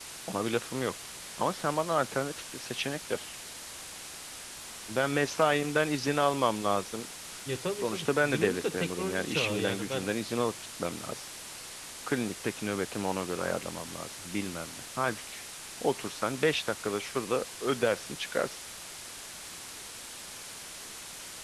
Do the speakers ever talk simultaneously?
Yes, from 7.8 s

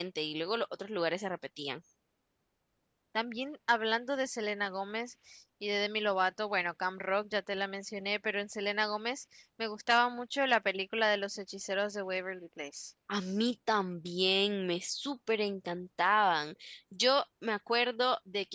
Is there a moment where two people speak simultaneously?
No

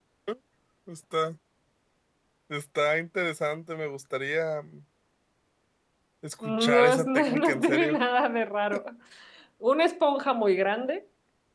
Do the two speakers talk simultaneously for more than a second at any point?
Yes, from 6.4 s

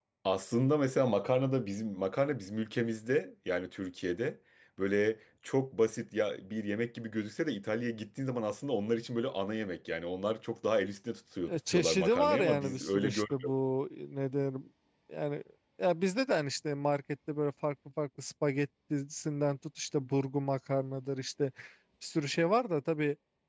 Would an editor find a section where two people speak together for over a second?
Yes, from 11.5 s

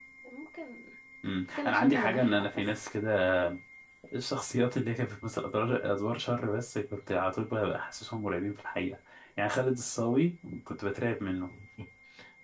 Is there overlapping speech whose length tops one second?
Yes, from 1.5 s

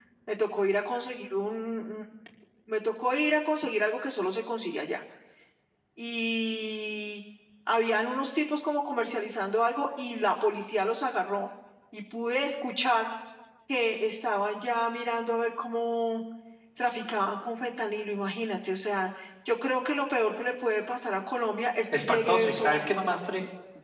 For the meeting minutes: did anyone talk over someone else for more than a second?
Yes, from 21.9 s

